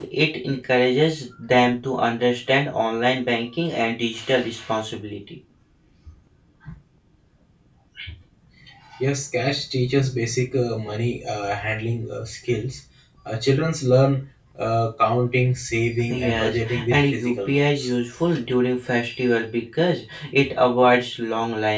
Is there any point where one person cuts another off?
Yes, from 16.1 s

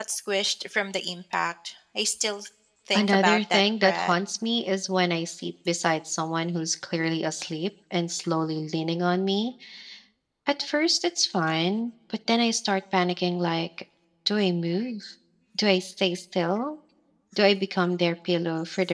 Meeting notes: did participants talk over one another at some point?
Yes, from 2.9 s

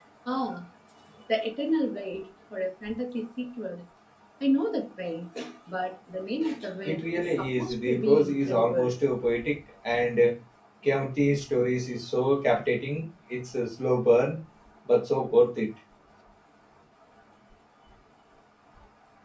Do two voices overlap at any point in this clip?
Yes, from 6.8 s

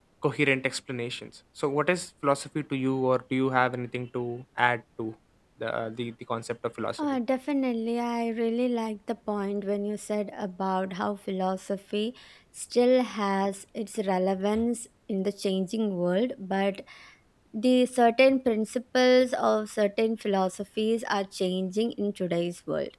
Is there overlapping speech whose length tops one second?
No

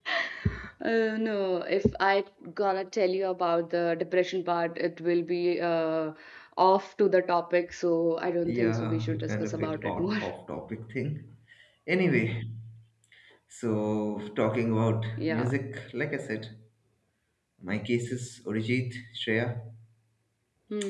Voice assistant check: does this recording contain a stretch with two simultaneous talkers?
Yes, from 8.5 s

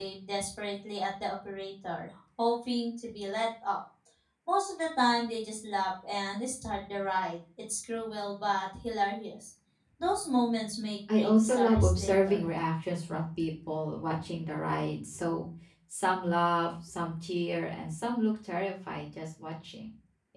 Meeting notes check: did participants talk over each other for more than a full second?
Yes, from 11.1 s

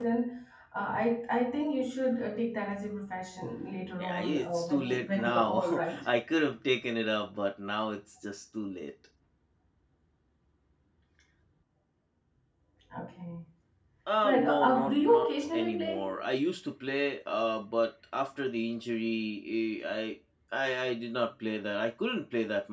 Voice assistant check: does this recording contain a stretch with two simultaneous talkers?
Yes, from 4.0 s

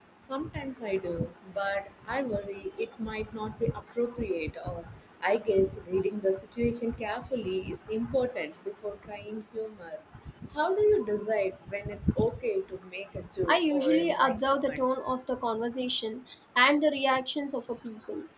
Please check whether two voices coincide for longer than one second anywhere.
Yes, from 13.5 s

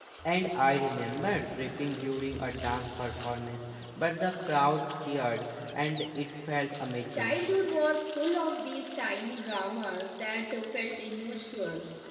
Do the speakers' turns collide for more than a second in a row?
No

